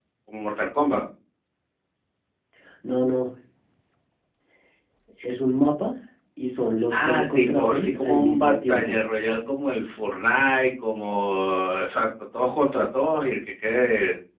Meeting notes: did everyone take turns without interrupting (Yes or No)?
No